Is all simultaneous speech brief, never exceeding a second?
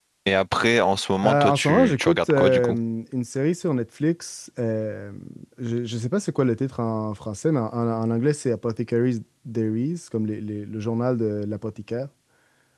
No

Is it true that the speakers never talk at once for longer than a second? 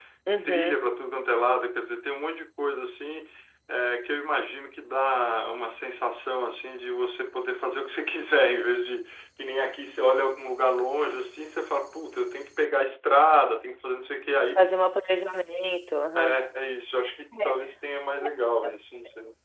Yes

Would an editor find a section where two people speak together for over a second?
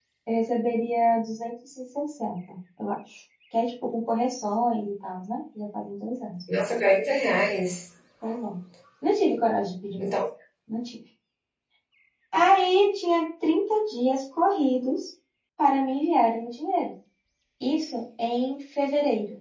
No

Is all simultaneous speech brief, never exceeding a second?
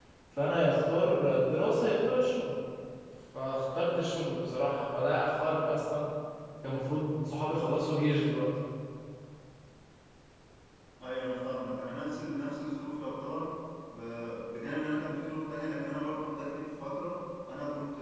Yes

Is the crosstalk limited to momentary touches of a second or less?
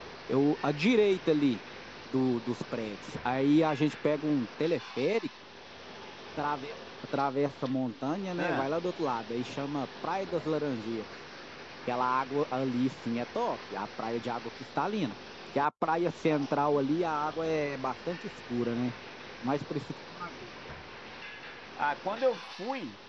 Yes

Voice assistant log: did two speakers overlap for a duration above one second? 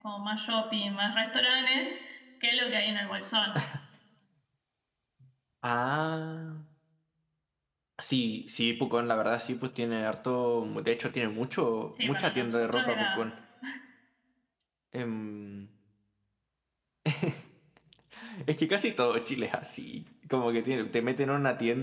Yes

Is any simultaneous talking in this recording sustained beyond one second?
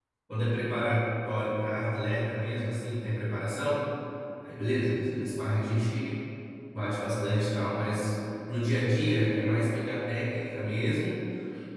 No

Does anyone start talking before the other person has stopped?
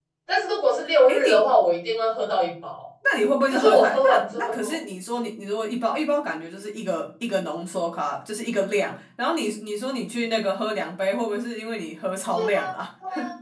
Yes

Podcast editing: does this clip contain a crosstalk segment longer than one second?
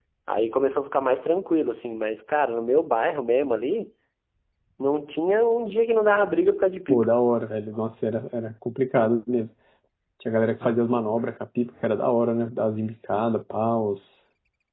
No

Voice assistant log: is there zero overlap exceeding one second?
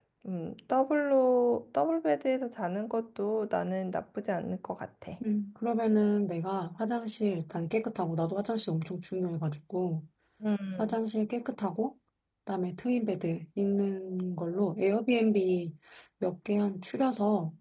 Yes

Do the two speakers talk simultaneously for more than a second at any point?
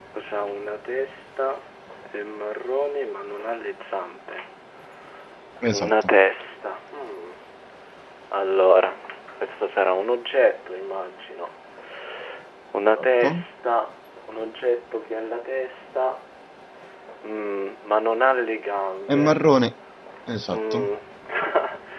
No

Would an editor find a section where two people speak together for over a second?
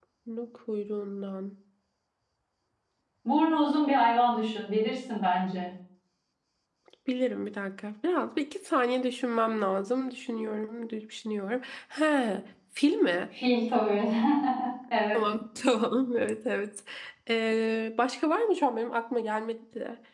No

